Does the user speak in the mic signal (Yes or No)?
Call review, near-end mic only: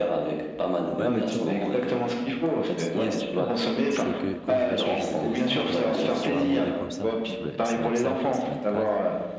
Yes